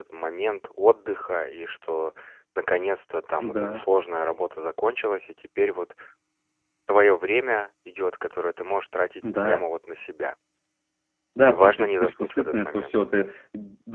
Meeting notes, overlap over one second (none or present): present